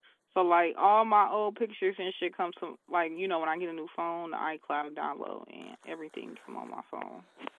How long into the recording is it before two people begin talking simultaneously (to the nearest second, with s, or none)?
none